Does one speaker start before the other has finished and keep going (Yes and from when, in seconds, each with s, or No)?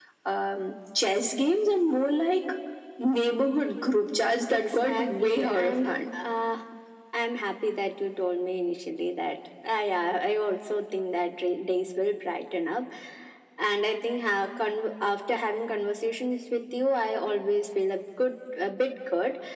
Yes, from 4.5 s